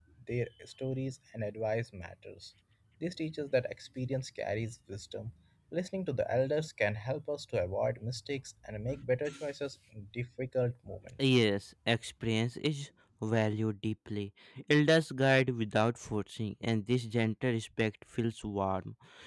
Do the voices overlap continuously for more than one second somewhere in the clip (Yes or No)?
No